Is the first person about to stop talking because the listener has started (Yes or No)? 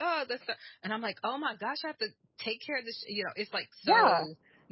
Yes